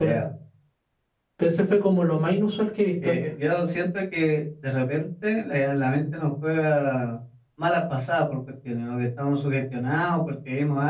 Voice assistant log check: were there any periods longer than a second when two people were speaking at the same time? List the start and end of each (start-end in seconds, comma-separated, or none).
none